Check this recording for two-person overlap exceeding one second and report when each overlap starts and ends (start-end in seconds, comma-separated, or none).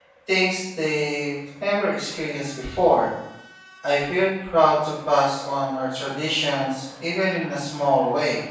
none